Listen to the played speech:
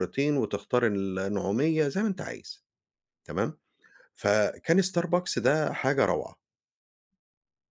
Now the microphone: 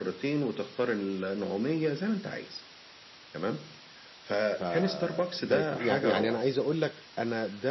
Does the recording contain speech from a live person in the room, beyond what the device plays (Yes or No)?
Yes